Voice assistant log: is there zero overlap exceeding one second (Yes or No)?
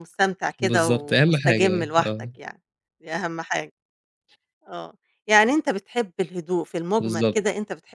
No